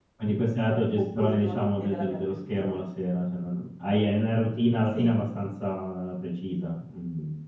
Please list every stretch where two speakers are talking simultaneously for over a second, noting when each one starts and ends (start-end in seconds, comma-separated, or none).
0.6-2.8